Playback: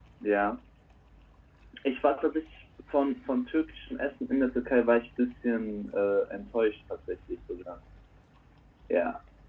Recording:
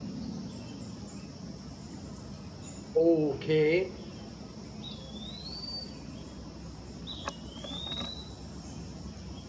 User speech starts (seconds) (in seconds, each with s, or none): 3.0 s